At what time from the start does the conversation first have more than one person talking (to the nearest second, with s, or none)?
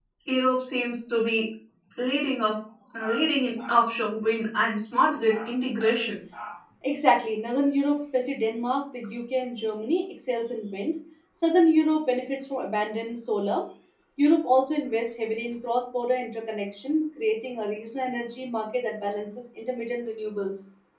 none